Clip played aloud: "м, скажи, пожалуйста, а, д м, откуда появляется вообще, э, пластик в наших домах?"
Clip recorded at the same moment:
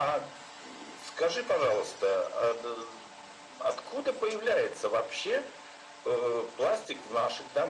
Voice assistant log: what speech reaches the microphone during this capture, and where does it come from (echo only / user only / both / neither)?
echo only